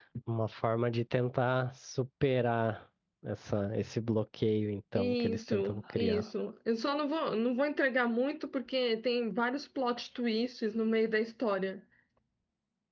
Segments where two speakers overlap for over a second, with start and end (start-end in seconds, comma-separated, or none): 5.0-6.2